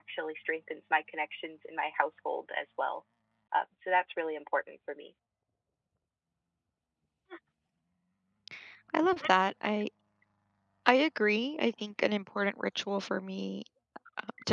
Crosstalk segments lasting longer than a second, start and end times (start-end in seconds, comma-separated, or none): none